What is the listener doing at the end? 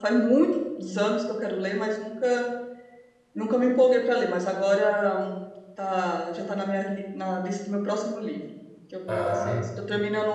listening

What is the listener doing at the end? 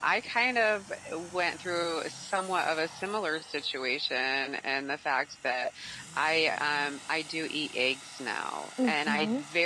listening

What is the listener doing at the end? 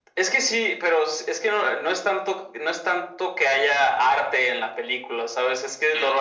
listening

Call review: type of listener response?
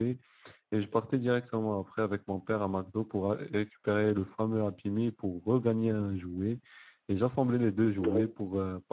listening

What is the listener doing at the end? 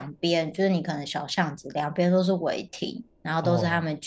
listening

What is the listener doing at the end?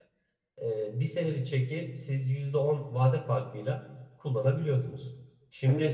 listening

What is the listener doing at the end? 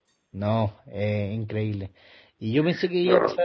listening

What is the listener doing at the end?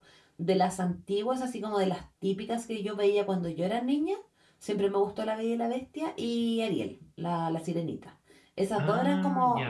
listening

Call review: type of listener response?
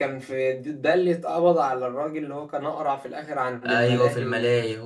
taking over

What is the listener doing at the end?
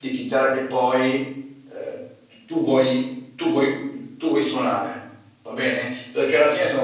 listening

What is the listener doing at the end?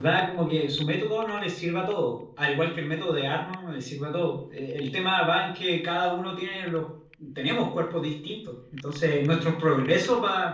listening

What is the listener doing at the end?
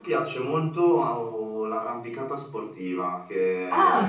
listening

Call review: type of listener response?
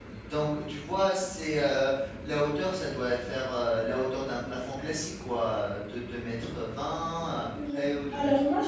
taking over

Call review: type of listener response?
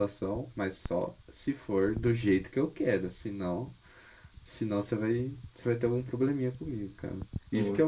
listening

